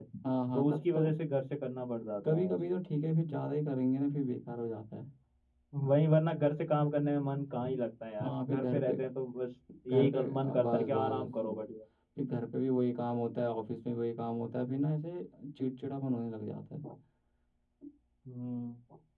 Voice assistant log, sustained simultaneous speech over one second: present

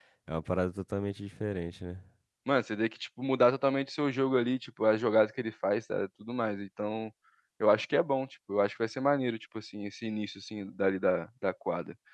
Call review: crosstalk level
none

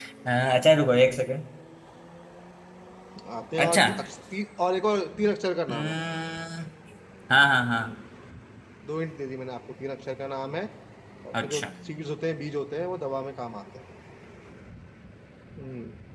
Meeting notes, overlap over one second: none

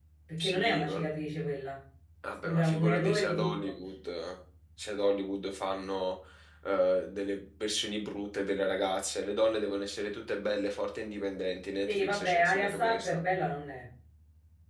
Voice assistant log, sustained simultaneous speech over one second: present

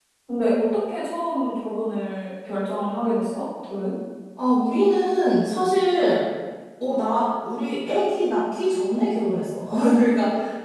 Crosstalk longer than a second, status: none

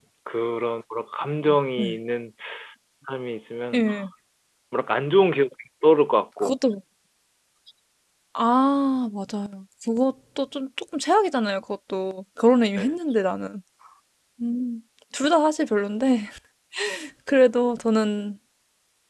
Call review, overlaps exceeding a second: none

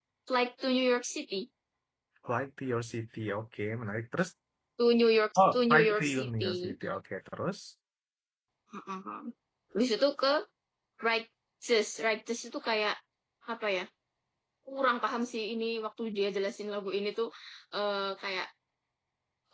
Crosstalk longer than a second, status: present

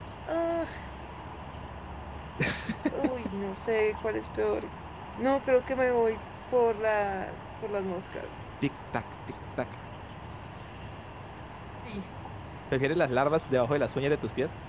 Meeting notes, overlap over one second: none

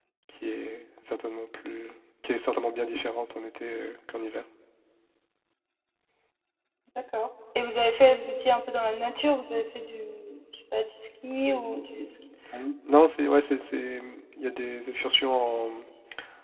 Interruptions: none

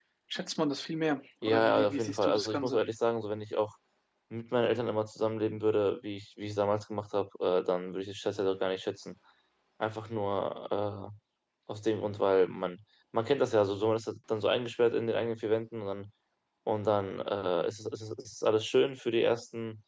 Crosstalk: present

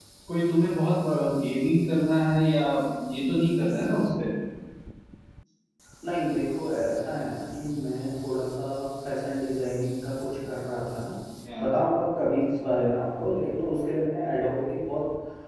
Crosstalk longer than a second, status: none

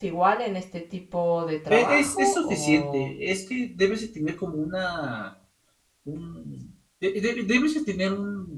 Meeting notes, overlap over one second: present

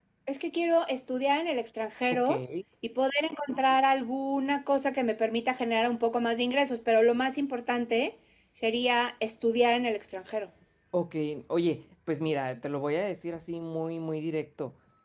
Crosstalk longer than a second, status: none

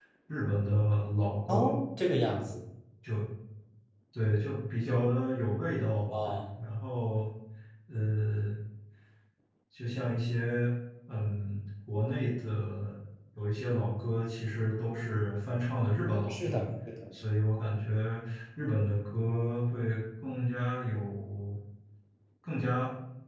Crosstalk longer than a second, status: none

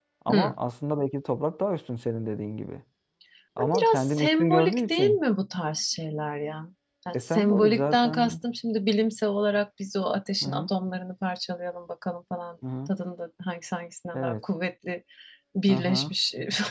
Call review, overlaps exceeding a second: present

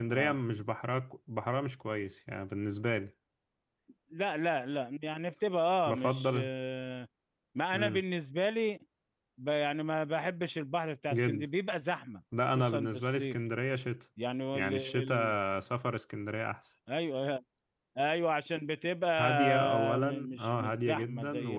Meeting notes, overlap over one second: present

